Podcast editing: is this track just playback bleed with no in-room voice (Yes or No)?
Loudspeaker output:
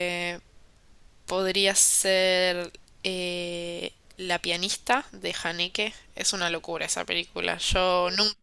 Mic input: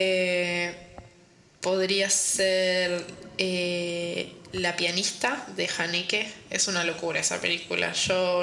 Yes